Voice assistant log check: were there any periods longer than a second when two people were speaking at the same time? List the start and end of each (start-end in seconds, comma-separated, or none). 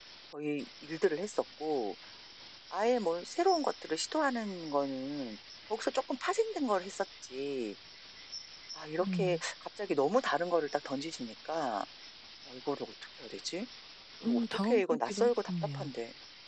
14.2-15.9